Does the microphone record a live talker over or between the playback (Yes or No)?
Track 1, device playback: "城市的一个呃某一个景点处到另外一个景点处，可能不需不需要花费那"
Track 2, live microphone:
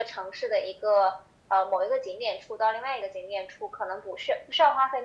No